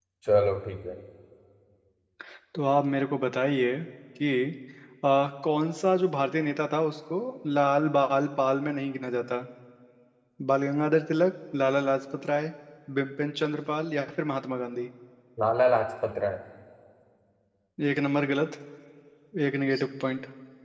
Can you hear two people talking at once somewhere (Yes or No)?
No